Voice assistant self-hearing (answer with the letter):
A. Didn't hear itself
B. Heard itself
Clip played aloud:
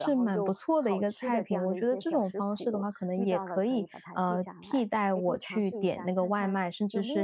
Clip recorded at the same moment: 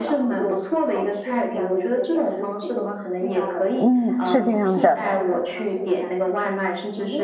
B